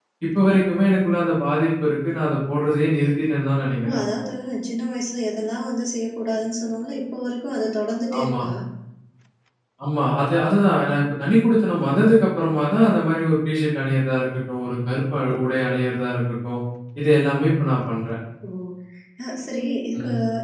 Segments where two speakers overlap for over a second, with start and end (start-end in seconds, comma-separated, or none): none